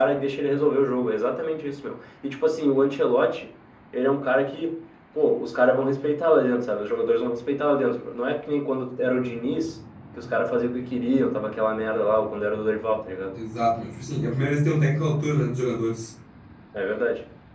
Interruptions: none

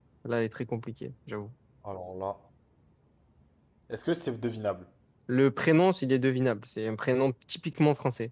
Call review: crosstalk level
none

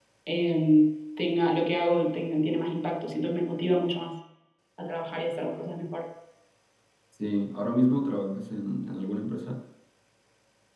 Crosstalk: none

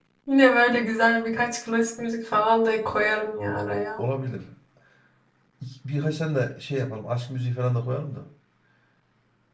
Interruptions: none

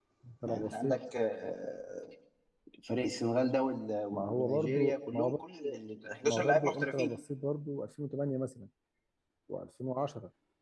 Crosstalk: present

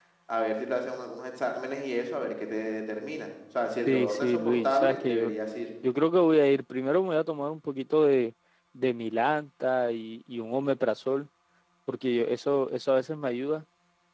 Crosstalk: present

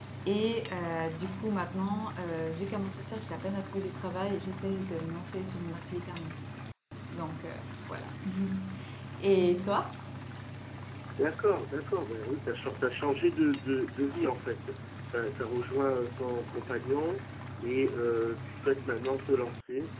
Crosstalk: none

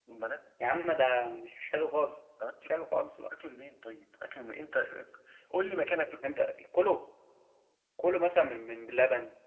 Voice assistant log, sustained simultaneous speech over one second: none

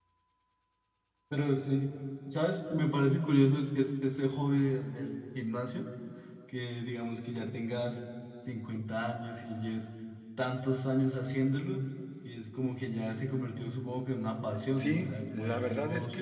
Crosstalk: present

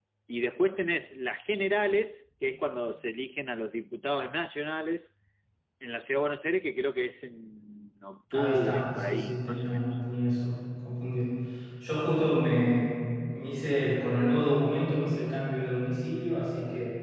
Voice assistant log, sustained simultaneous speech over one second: present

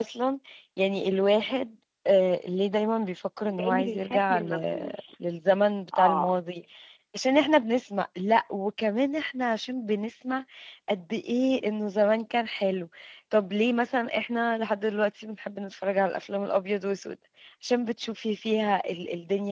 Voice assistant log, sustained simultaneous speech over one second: present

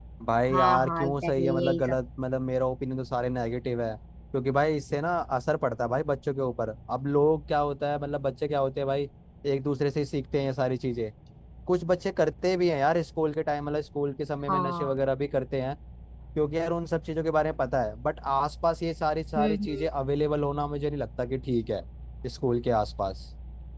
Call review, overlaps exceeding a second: present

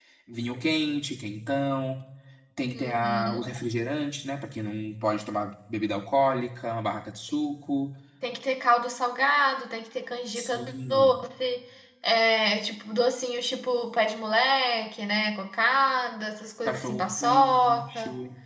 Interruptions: present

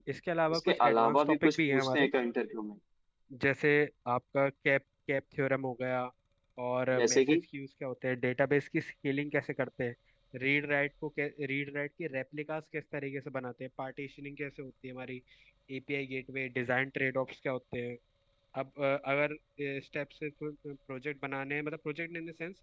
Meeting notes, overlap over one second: present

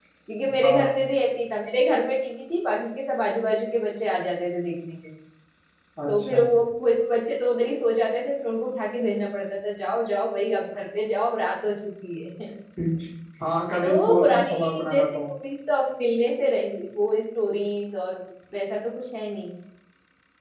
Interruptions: present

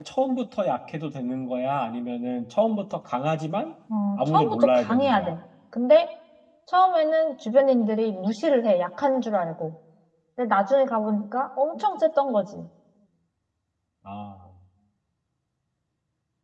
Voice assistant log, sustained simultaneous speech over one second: present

